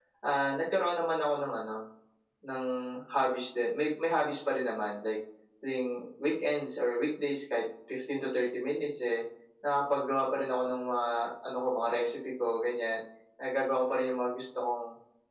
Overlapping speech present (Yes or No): No